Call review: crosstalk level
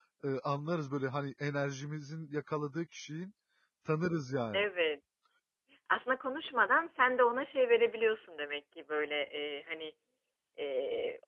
none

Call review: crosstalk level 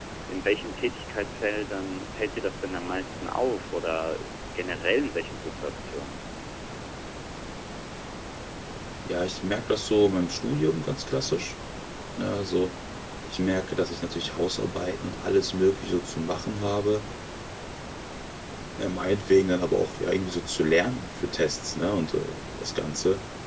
none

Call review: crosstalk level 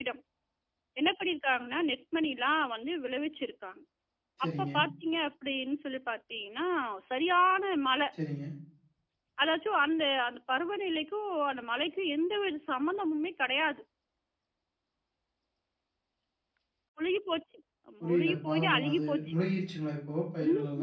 present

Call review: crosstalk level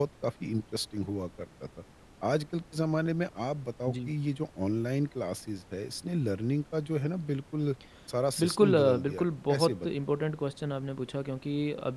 present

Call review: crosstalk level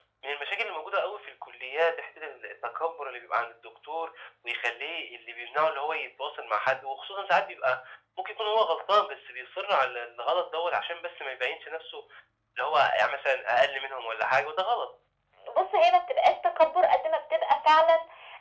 none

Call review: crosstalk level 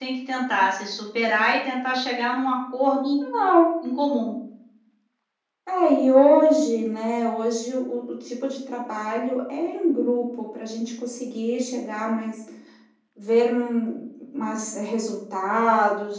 none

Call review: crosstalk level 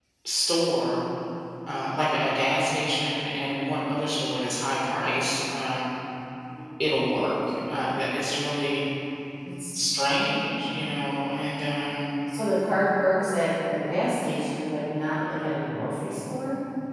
none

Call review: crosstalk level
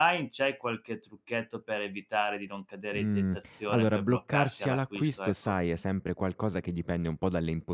present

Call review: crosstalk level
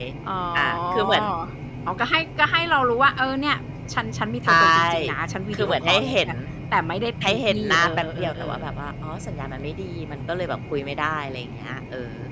present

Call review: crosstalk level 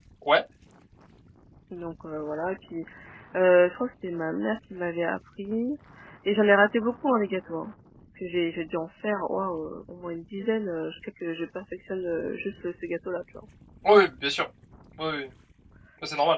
none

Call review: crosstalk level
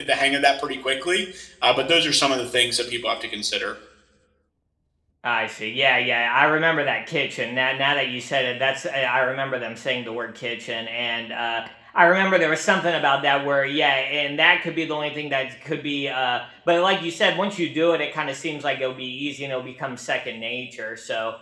none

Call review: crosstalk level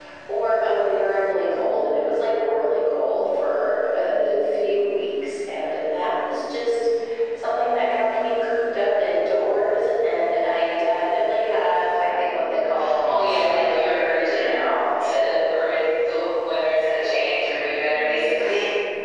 present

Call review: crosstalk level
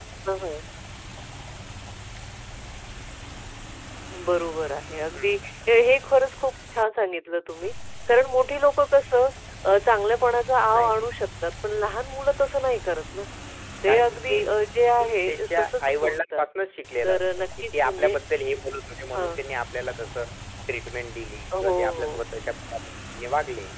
present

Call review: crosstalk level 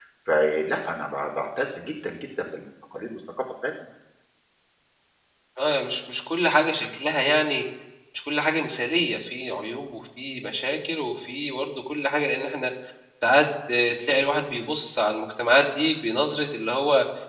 none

